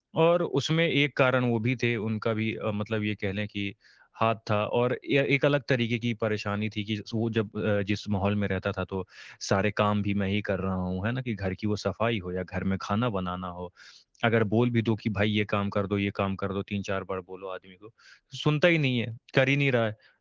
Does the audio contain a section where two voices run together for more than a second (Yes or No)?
No